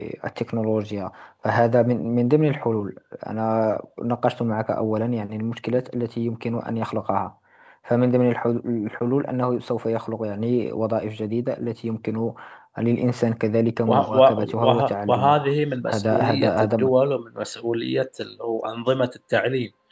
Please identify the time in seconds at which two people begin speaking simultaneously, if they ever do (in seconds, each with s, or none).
13.9 s